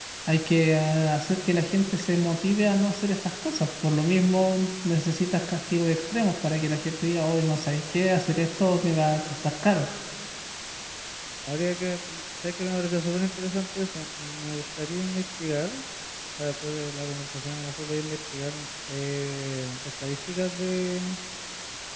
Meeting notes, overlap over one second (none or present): none